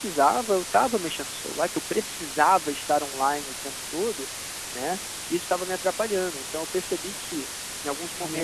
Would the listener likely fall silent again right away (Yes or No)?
Yes